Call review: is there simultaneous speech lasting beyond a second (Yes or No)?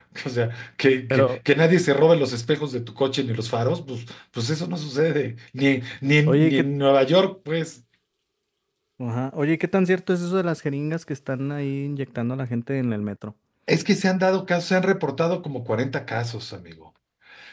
No